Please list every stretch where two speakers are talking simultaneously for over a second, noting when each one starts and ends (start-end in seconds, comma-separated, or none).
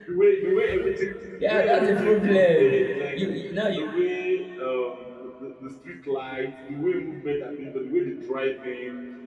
1.4-3.2